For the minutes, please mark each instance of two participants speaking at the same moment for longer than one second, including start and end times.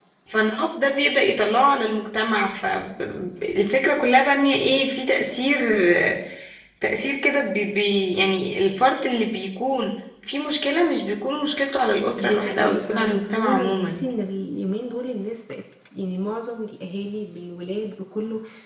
12.2-14.0

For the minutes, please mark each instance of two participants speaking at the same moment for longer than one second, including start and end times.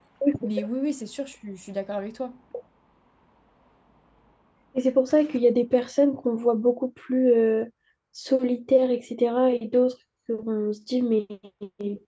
none

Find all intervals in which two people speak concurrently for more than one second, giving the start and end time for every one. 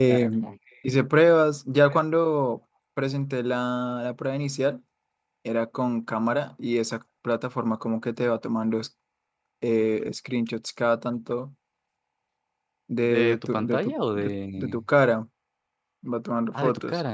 13.1-14.8

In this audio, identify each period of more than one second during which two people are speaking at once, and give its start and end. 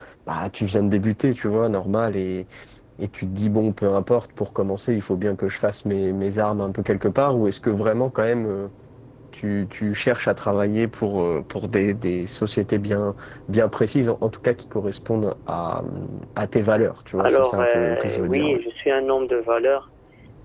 17.2-18.6

